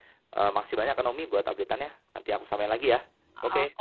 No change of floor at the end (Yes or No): No